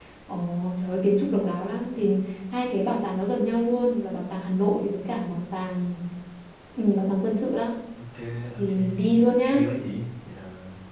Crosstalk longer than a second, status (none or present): none